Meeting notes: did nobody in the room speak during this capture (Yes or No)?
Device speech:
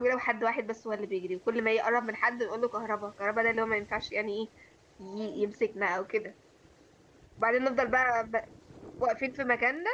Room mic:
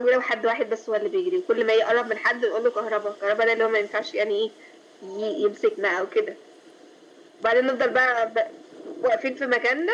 Yes